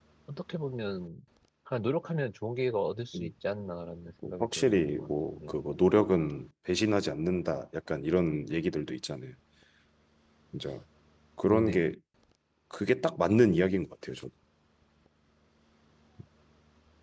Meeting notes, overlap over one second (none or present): present